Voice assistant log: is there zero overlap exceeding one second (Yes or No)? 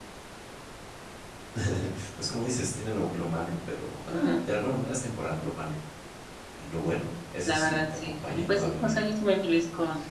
No